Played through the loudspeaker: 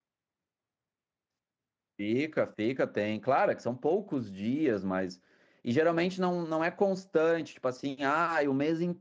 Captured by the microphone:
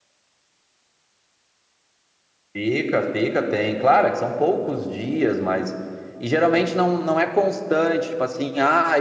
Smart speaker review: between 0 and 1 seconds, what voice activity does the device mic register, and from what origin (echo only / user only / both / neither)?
neither